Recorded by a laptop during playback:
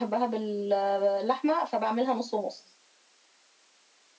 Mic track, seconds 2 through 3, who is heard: echo only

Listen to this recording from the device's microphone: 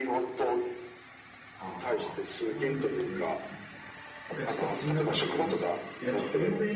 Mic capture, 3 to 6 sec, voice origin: both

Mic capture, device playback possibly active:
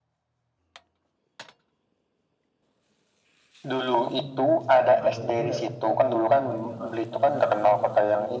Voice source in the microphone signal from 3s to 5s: both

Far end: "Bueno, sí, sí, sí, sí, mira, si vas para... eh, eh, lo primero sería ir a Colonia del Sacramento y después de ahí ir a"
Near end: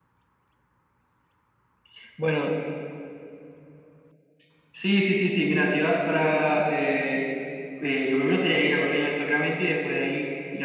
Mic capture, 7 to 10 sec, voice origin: echo only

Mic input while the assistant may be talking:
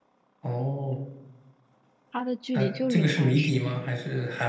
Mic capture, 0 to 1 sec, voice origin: echo only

